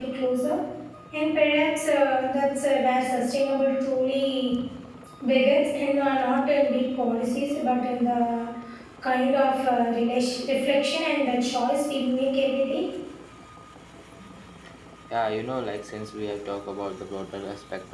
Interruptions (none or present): none